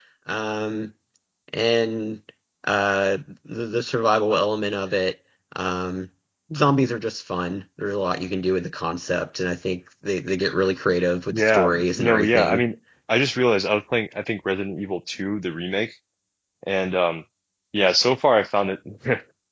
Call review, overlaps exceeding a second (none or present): present